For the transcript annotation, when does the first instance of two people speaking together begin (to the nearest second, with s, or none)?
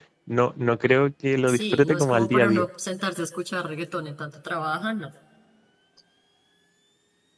1 s